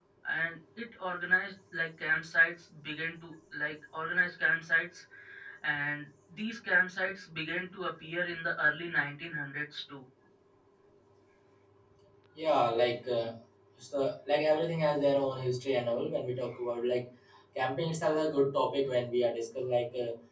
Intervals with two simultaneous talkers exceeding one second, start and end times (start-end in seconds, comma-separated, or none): none